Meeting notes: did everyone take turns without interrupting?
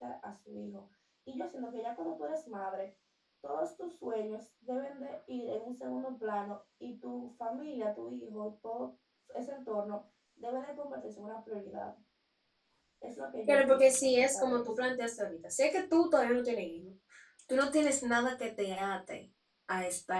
No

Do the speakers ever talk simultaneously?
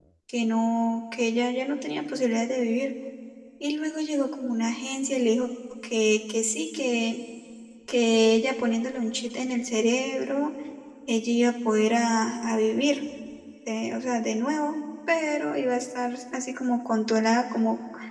No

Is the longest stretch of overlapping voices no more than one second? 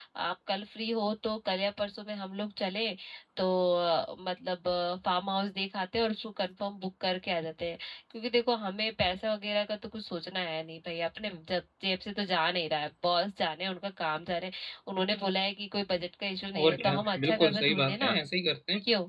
No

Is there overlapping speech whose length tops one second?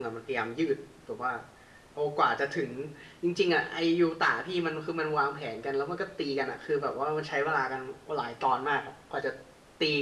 No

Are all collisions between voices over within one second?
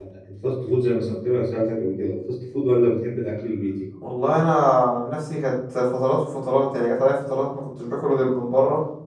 Yes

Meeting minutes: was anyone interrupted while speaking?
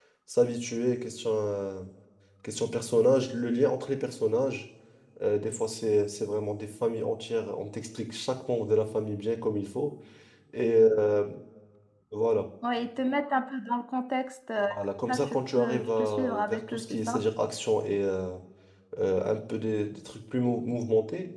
Yes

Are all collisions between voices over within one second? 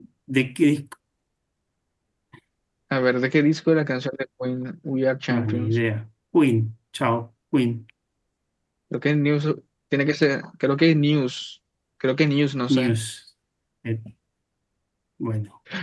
Yes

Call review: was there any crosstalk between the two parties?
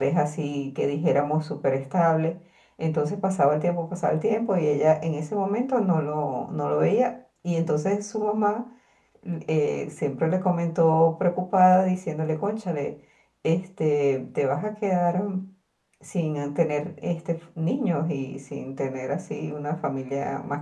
No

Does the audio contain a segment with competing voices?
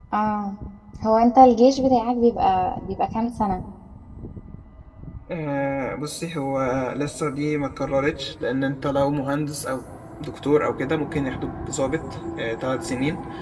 No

